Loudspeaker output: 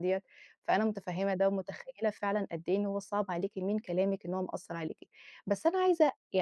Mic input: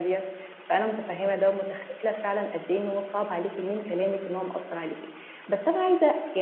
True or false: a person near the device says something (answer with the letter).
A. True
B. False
B